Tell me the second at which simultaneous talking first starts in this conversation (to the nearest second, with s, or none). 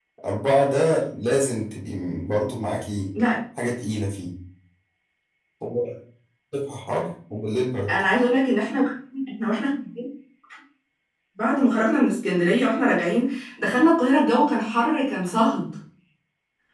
none